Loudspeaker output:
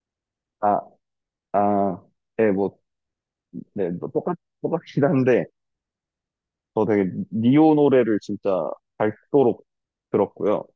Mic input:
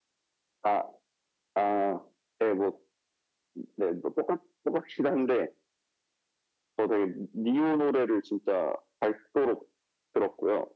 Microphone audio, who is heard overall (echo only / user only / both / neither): echo only